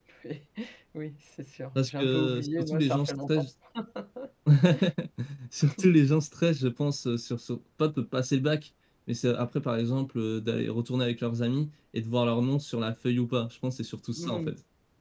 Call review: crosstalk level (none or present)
present